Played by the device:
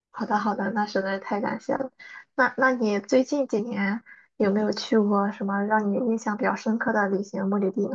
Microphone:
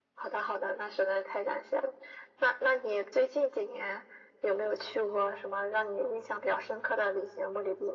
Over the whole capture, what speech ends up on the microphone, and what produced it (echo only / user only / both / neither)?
echo only